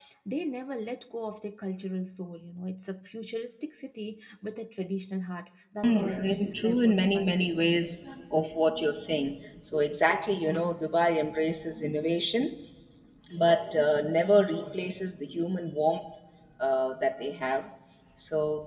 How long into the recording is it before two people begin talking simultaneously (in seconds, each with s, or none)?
5.8 s